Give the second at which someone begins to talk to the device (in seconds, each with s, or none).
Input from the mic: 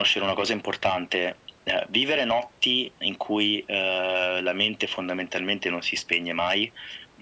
none